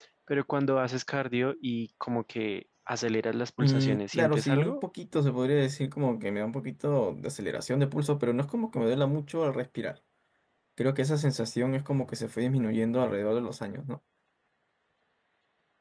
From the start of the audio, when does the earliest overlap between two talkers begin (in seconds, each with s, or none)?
3.6 s